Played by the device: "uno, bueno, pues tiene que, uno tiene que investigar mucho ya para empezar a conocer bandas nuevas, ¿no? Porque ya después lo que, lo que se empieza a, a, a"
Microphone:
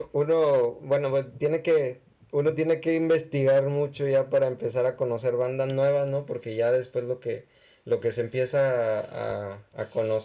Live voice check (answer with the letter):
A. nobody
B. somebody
A